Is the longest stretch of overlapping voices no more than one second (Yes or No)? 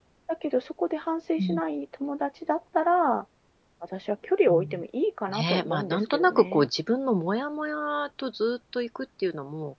No